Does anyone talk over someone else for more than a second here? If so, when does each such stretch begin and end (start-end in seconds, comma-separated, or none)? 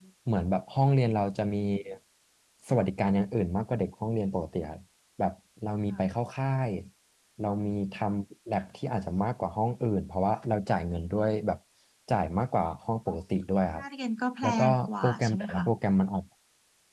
14.4-15.6